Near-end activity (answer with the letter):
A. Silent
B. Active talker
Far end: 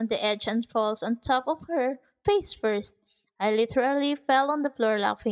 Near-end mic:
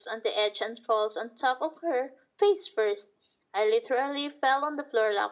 A